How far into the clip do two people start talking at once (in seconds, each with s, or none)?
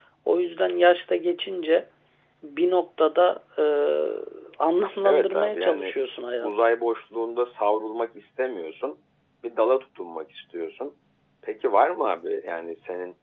5.0 s